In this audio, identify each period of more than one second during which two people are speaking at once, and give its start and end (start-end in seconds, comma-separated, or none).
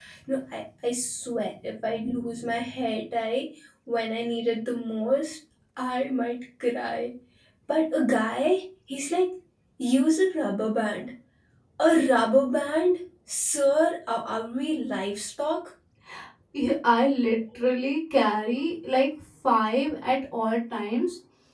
none